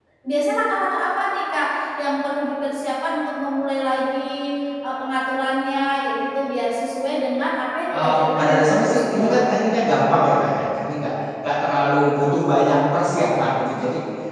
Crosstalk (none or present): present